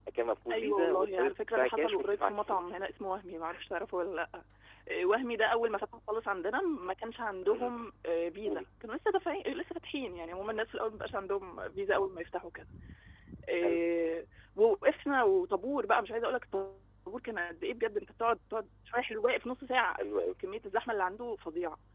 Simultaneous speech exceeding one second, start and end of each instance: 0.5-2.8

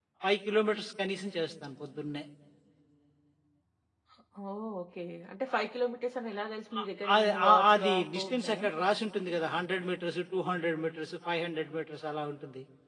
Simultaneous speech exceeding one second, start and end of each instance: 6.8-8.6

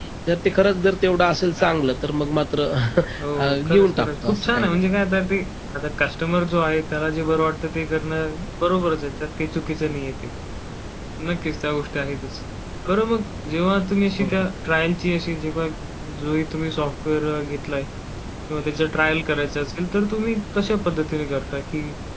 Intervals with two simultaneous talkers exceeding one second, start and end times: 3.4-4.8

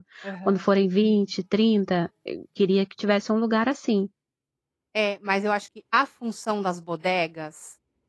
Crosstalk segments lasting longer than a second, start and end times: none

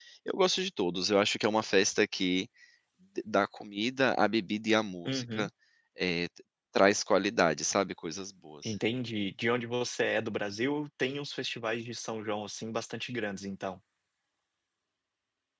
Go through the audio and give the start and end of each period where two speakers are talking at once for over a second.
none

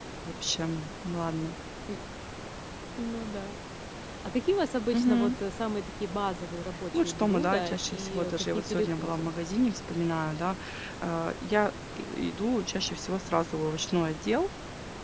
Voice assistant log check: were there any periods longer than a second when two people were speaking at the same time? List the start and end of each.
6.9-9.3

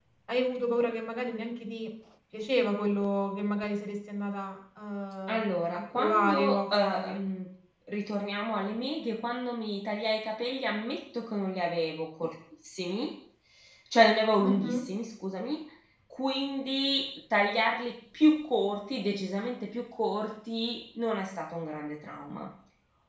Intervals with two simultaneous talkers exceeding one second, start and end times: 5.9-7.2

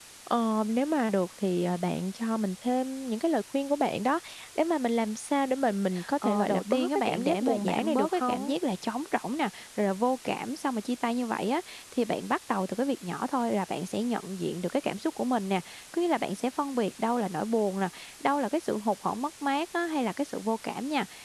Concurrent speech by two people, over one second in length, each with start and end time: 6.2-8.5

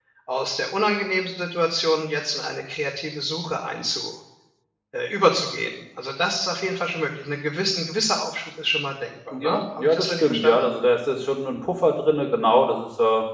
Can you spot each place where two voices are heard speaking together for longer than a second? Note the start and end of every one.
9.3-10.7

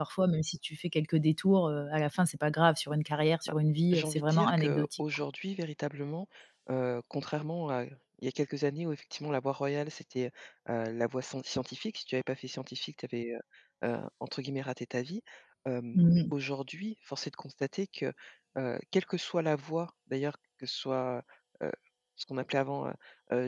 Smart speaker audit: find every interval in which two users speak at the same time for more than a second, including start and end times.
3.9-5.2

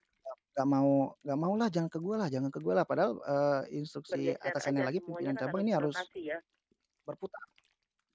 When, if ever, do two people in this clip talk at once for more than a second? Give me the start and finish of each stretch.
4.1-6.0

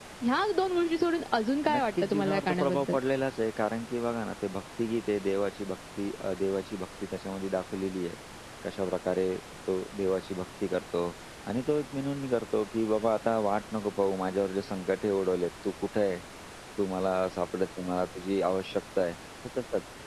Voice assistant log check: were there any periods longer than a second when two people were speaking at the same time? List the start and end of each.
1.7-2.9

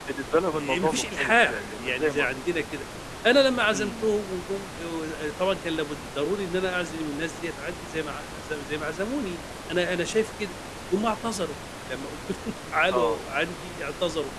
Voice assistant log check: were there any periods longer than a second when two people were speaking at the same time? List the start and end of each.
0.6-2.4

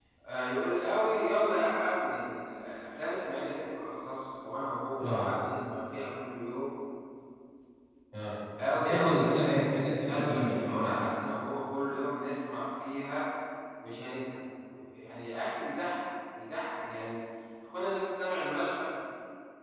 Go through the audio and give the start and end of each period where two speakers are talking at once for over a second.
8.7-11.0

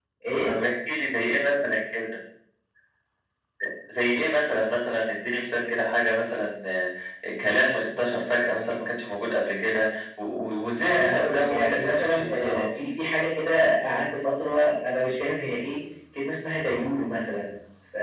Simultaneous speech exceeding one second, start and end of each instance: 10.9-12.7

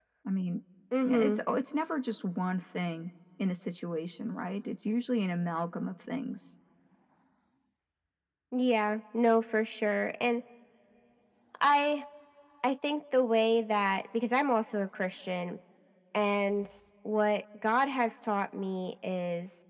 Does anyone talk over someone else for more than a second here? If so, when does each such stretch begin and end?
none

